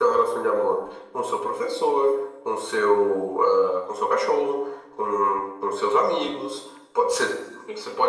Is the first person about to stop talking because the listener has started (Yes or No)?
No